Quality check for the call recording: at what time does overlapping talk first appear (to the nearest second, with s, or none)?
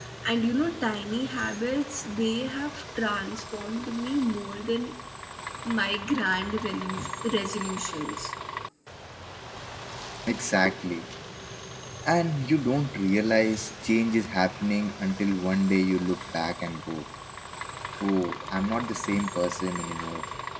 none